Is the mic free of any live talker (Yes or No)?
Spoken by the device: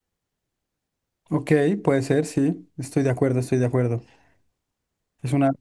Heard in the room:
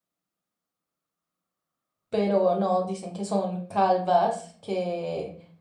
No